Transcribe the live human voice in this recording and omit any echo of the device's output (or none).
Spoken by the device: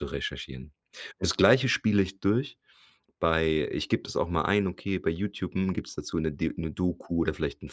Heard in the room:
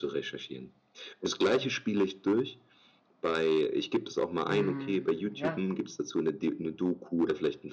Mhm. Ja.